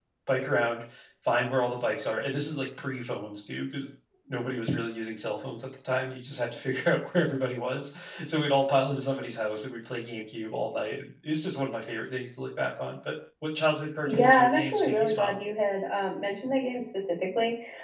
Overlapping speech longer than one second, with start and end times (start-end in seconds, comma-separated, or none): 14.0-15.4